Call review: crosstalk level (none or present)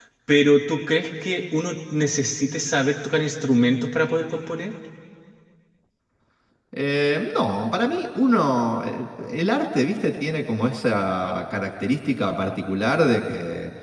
none